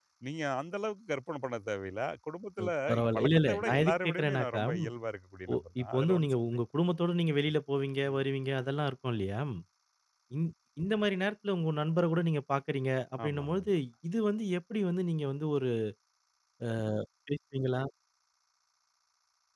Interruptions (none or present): present